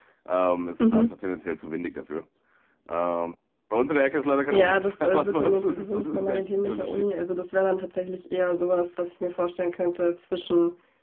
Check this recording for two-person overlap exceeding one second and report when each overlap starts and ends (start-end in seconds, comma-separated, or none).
4.5-7.0